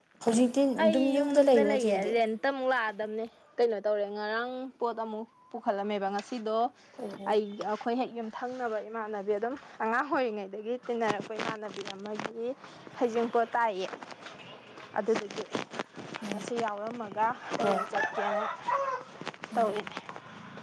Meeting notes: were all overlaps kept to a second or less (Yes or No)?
No